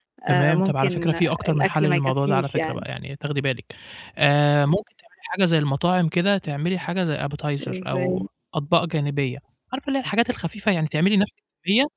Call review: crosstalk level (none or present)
present